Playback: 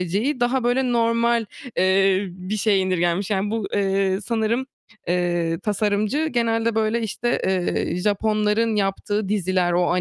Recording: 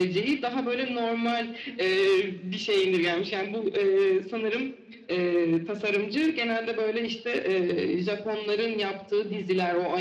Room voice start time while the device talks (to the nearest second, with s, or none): none